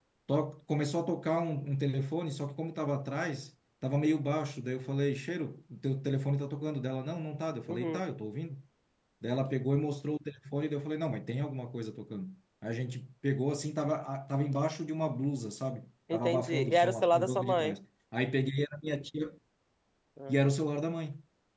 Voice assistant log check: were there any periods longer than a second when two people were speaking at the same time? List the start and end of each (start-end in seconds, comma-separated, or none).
16.1-17.8